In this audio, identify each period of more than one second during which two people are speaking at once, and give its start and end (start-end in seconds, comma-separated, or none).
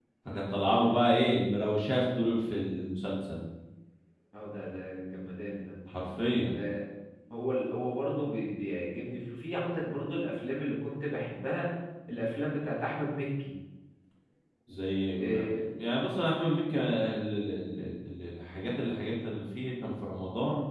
none